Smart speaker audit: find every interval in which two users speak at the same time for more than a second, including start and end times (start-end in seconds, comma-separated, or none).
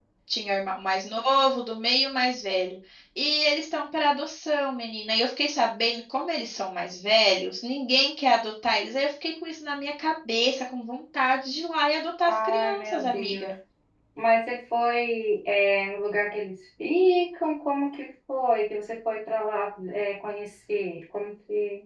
12.3-13.5